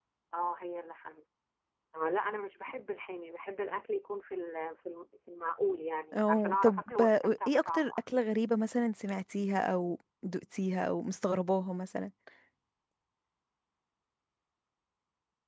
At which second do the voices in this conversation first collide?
6.1 s

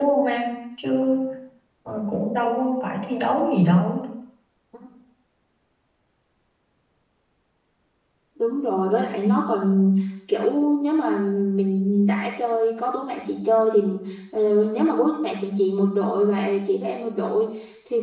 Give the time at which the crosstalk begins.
none

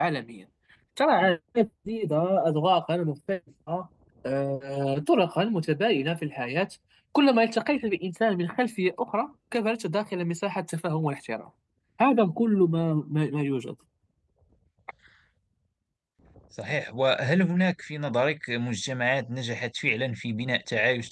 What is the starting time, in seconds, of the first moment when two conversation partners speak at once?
none

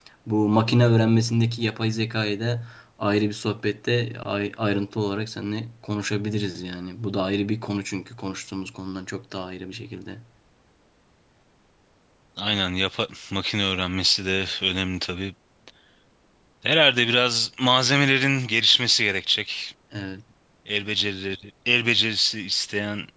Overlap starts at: none

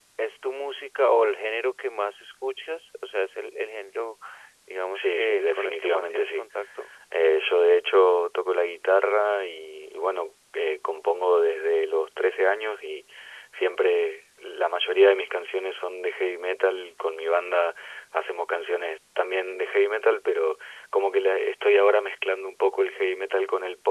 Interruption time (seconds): 5.0 s

